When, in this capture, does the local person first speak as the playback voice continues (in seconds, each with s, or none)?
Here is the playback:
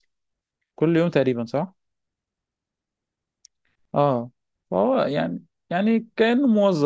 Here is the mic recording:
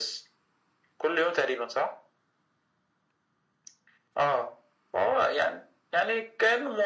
none